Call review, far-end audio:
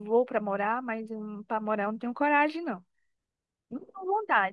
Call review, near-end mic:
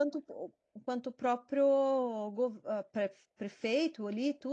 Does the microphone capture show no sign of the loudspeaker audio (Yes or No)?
Yes